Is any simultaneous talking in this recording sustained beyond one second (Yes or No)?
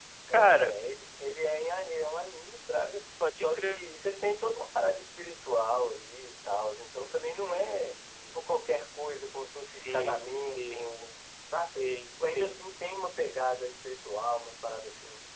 Yes